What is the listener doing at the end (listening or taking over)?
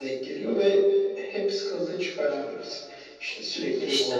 listening